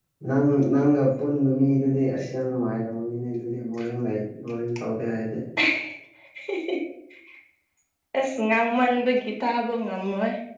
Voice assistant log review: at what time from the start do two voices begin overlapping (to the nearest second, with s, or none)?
none